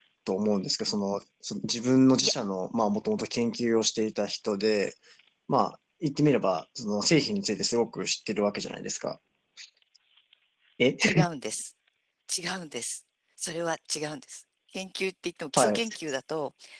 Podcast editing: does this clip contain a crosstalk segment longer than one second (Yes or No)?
No